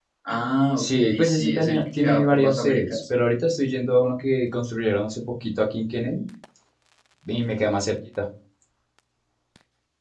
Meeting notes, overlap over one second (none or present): present